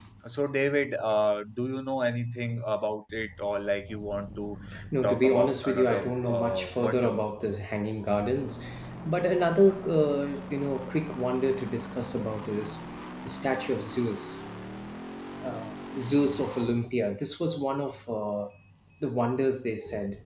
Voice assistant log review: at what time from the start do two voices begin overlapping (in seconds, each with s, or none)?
5.0 s